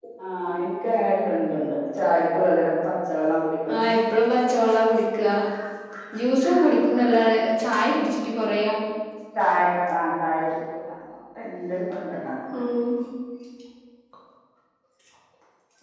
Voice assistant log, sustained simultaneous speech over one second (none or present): none